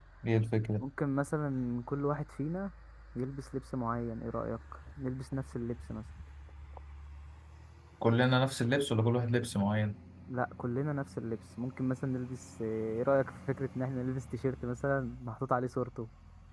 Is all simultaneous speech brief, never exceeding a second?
Yes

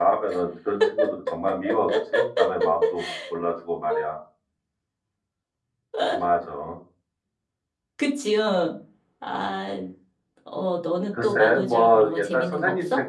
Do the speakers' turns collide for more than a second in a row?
Yes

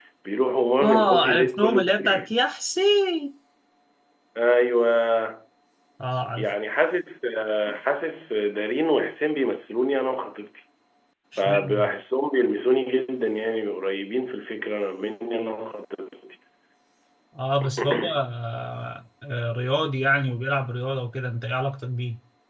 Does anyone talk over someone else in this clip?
Yes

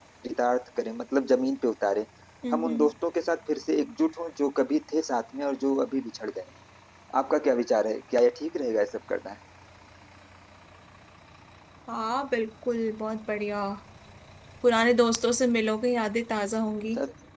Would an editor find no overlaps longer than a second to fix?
Yes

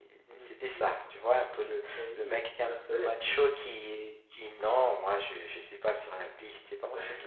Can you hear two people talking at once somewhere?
Yes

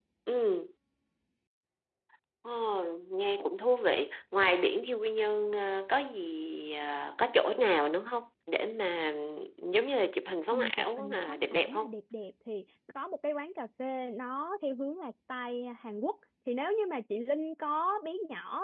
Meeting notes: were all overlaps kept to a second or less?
No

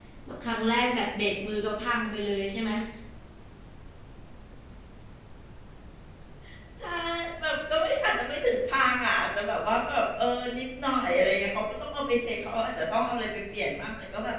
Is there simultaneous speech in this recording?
No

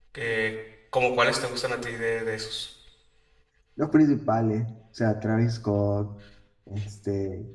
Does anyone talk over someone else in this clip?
No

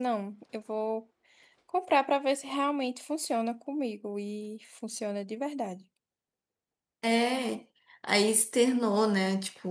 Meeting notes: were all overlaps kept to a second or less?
Yes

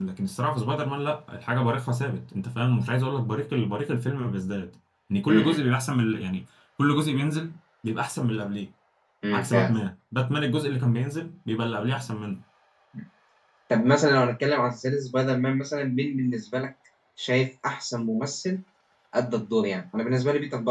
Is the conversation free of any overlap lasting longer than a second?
Yes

